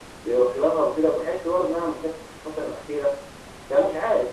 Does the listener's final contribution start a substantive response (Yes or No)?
No